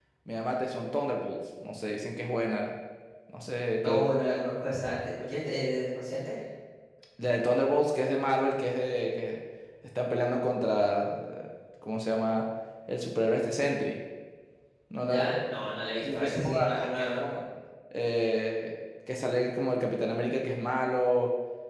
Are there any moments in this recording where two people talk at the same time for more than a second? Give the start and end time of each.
16.0-17.4

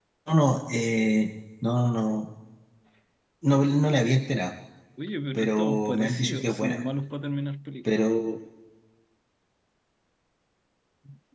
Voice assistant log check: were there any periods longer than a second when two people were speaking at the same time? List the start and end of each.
5.3-6.8

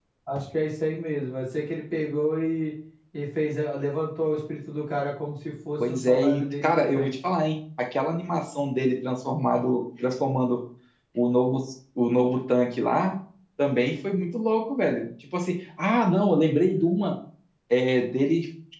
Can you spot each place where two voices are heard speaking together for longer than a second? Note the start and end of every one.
5.9-7.1

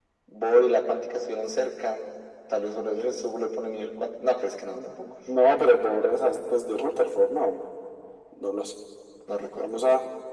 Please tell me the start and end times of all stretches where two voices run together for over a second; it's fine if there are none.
none

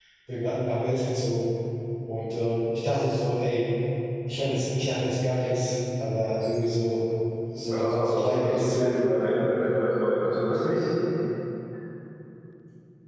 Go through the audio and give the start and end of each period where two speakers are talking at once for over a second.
7.7-9.0

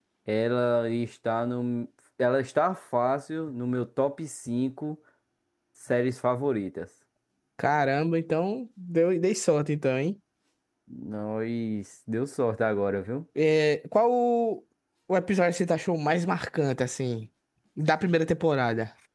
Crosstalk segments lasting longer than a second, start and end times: none

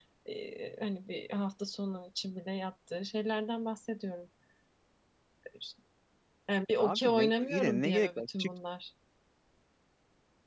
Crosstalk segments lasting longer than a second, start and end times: 6.8-8.5

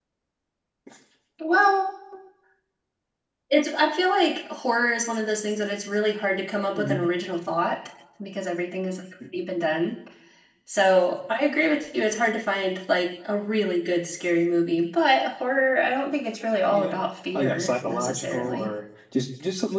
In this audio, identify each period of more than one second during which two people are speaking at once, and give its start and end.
17.3-18.7

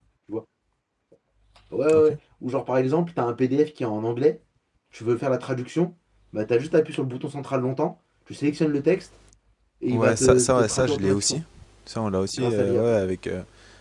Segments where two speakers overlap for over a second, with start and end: 9.9-11.4

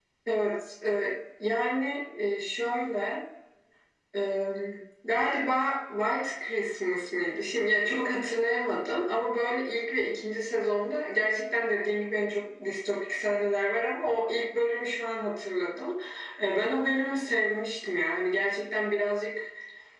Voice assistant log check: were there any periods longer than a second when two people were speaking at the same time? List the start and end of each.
none

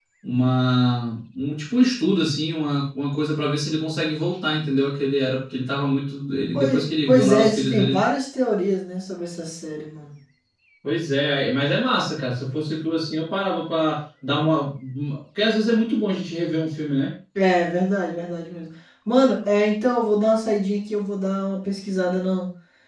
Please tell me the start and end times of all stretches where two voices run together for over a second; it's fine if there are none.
6.5-8.0

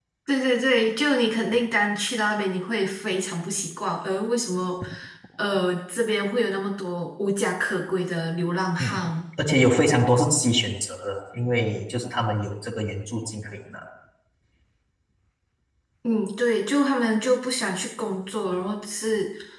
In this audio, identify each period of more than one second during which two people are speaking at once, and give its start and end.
none

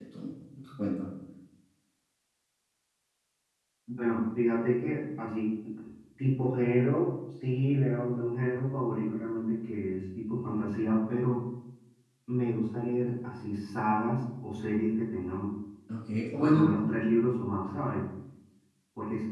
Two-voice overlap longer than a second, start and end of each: none

